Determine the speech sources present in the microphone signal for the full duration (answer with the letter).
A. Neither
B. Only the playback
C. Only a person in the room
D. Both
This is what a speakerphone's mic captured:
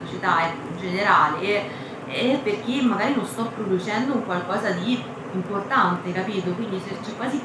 C